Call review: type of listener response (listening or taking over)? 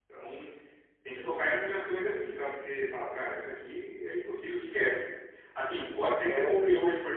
listening